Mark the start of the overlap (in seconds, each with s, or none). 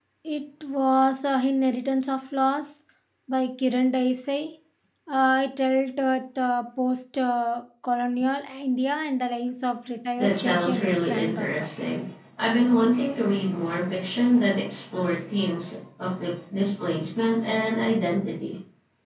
10.2 s